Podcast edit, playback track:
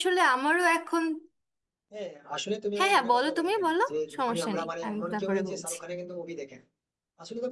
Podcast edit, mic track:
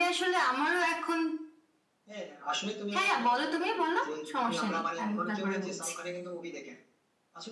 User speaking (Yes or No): No